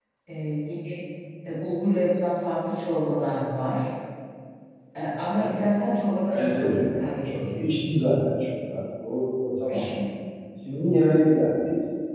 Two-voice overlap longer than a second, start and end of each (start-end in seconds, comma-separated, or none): 6.3-7.7